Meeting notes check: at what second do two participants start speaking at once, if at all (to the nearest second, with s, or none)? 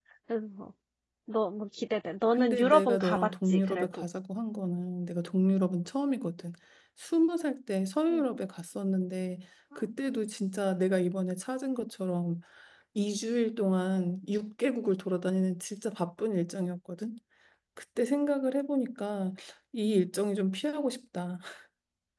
2 s